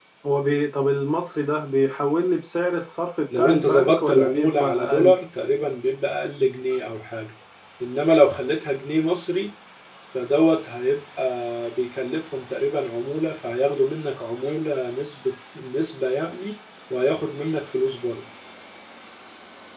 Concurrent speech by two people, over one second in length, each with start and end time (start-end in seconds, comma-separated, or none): 3.4-5.1